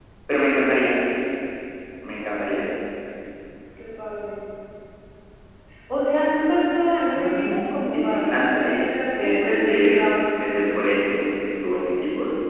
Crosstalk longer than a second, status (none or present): present